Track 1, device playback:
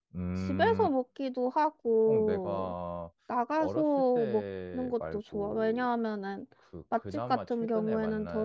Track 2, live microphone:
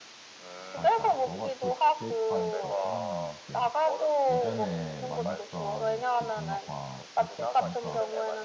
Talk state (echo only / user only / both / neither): both